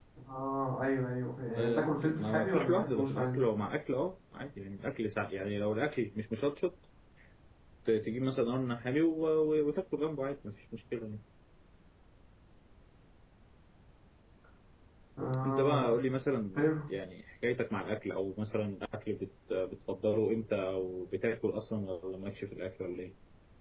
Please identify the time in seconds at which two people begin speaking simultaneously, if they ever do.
2 s

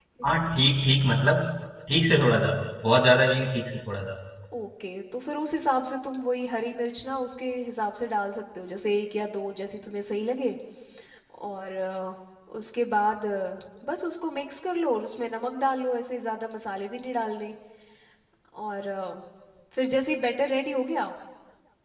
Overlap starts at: none

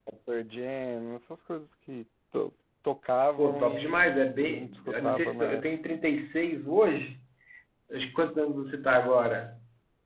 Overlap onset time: 3 s

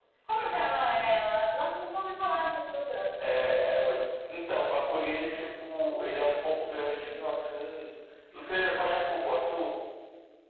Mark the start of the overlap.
none

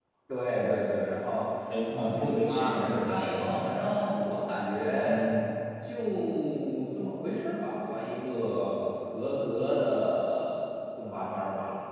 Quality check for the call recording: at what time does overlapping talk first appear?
2 s

